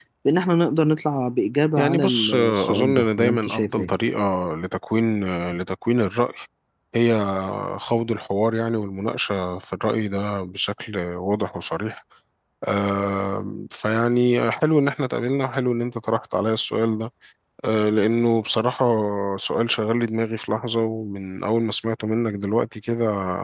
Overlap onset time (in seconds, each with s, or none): 1.8 s